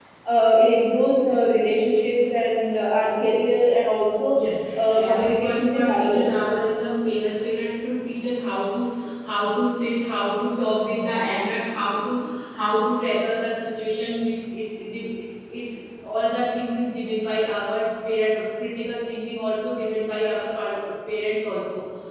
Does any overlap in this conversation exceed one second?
Yes, from 5.0 s

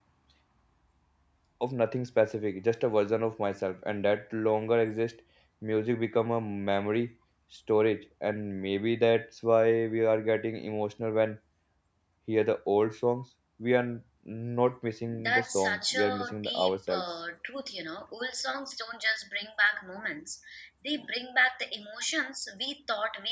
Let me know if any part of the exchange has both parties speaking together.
Yes, from 15.2 s

